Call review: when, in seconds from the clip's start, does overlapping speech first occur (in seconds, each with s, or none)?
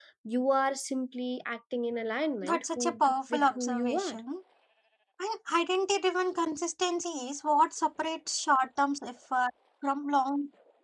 2.4 s